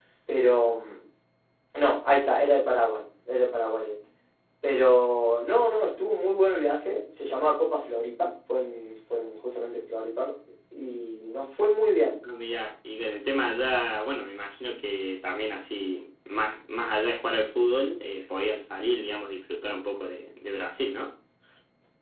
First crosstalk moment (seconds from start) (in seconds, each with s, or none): none